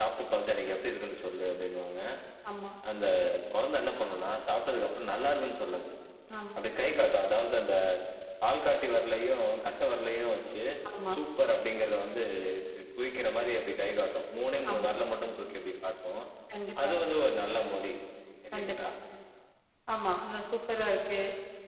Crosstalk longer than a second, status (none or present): none